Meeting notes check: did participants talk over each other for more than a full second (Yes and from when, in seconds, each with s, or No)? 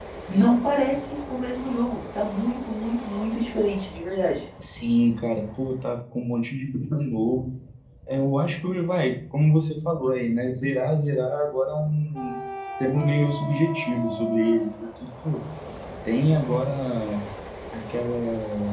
No